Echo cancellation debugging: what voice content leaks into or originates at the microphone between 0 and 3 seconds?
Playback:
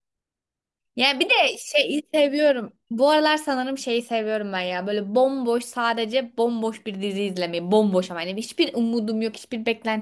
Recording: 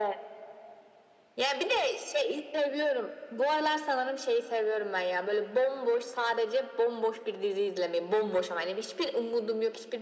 echo only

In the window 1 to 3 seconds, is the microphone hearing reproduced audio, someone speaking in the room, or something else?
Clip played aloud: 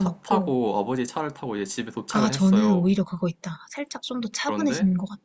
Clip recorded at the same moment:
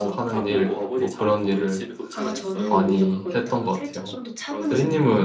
both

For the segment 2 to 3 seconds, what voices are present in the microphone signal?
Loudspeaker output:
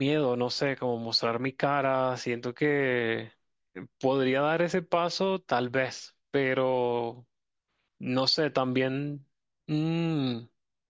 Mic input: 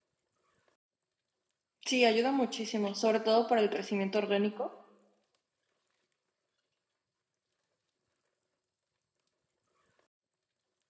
user only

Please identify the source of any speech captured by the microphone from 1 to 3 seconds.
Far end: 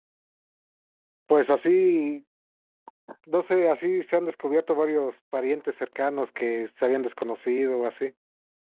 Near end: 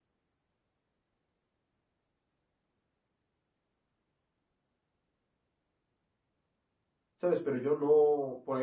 neither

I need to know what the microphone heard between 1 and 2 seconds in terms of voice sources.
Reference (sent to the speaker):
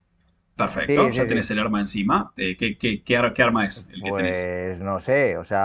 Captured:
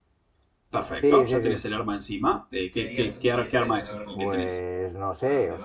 echo only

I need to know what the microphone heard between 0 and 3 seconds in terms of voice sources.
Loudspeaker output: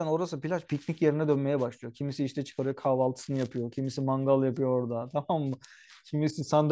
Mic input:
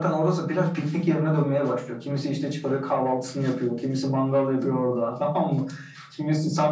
echo only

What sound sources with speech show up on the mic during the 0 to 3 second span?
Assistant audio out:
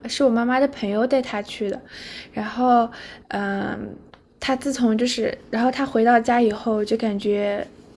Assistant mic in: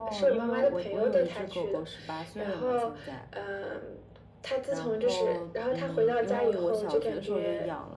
both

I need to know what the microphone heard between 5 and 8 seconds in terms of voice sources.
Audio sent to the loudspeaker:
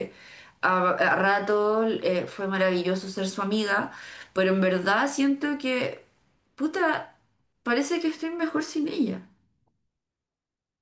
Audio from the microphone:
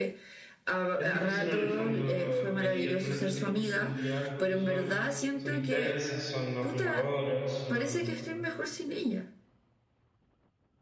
both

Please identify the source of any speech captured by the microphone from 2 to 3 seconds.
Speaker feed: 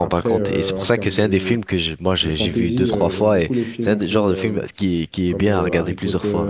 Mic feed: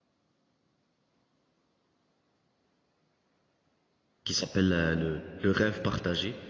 neither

